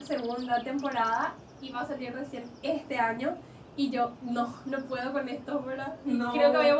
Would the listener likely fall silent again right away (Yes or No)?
Yes